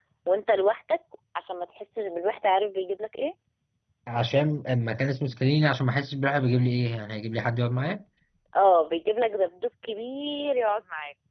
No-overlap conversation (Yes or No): Yes